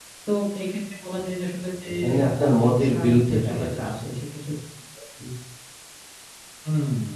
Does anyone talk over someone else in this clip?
Yes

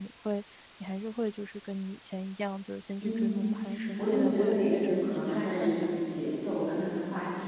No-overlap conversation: No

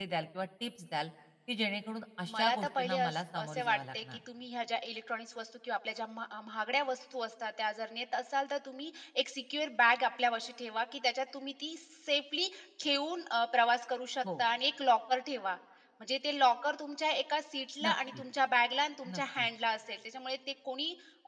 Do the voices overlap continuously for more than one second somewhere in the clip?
Yes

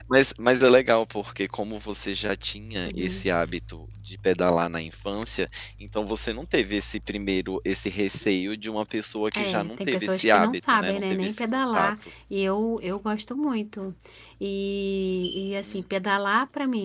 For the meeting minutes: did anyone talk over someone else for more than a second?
Yes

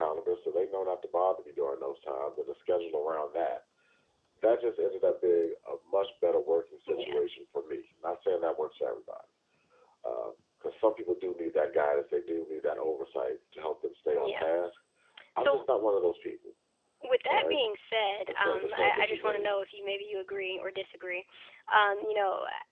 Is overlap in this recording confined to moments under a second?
No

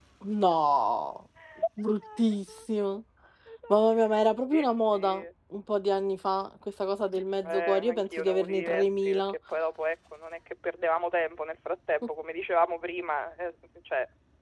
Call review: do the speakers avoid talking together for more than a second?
No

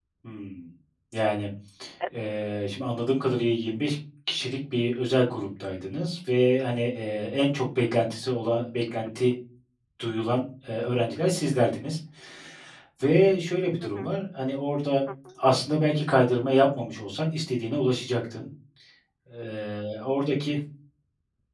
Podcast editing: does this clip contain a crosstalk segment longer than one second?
No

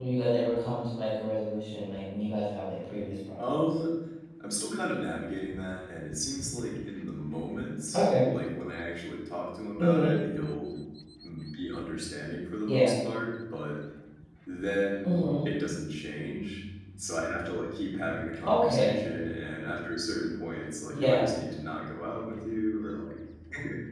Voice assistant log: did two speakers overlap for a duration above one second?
No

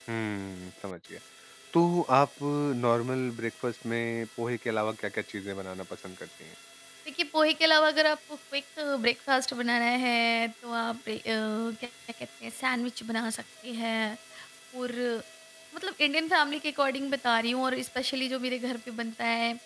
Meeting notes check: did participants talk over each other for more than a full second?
No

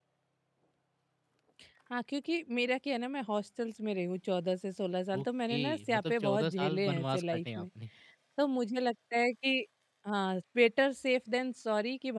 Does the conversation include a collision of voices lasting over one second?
Yes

